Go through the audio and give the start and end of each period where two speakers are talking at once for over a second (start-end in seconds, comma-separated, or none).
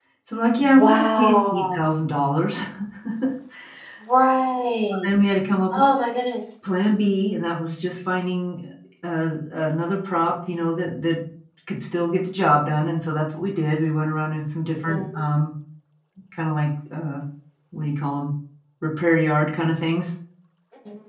0.6-1.8